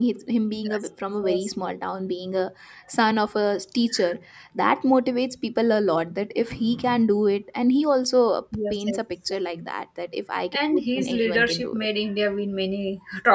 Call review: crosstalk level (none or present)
present